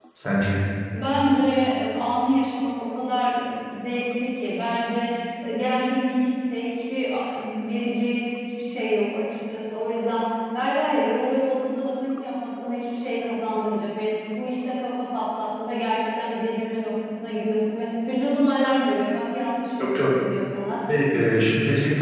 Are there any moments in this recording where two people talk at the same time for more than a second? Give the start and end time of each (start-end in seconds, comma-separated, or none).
none